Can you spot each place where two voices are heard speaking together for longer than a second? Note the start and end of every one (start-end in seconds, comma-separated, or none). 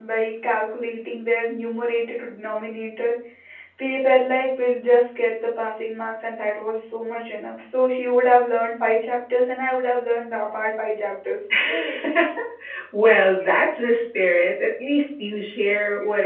none